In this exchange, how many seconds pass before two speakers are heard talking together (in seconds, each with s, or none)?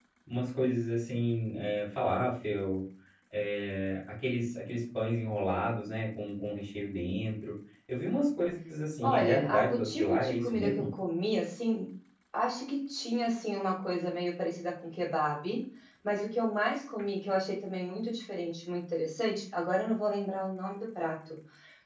9.0 s